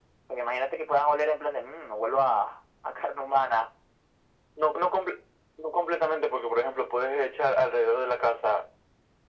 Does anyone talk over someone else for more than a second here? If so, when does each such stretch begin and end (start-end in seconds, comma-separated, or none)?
none